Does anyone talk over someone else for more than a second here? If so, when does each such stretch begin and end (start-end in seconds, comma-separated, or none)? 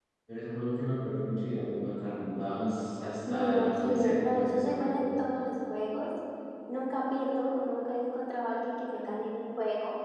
3.2-4.9